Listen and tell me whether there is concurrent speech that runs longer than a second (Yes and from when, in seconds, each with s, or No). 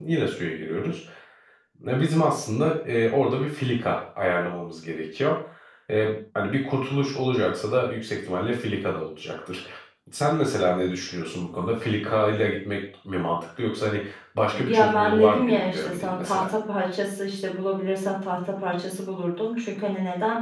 Yes, from 14.6 s